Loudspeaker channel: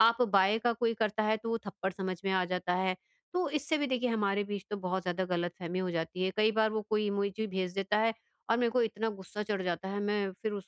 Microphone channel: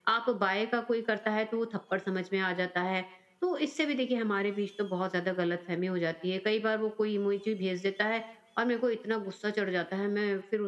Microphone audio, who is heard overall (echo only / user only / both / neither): echo only